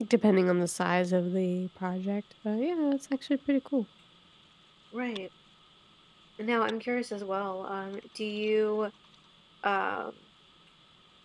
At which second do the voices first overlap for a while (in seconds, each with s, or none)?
none